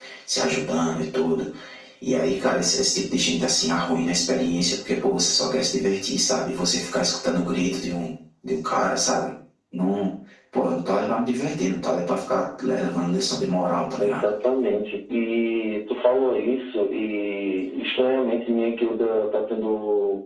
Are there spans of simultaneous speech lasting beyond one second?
No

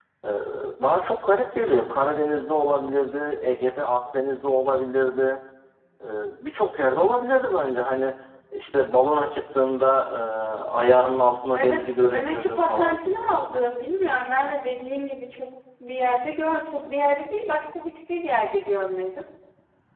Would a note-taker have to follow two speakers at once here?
Yes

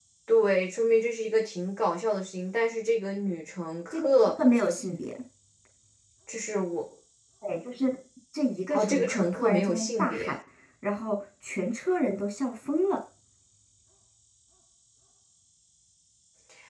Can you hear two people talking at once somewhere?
Yes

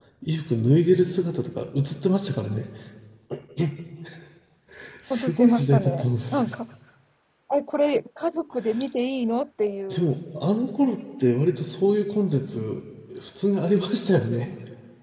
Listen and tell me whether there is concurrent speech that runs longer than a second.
Yes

